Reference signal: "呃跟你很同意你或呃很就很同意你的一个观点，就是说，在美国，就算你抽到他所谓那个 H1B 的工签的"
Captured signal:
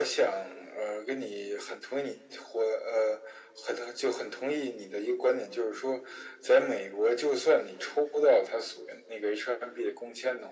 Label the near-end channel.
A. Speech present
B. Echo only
B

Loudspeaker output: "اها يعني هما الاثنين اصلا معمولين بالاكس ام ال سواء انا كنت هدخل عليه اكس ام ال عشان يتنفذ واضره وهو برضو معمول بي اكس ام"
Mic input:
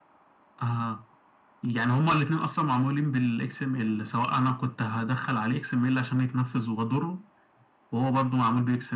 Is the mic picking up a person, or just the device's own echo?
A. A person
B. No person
B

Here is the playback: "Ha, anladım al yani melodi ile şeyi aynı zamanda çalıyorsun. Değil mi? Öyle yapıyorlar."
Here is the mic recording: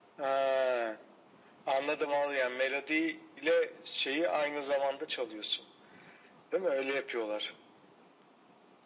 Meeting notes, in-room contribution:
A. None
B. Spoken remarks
A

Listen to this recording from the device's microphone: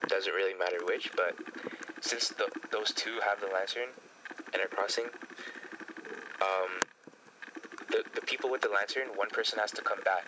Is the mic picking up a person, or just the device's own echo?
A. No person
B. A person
A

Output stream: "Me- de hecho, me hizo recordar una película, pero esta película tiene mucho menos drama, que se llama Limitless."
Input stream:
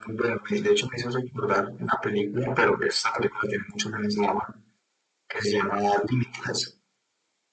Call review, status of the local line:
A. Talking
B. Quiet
B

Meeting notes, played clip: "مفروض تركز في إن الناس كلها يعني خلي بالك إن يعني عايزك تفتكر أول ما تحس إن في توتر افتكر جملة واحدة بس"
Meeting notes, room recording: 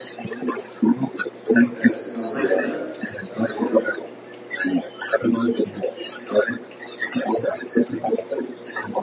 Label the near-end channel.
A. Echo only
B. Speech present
B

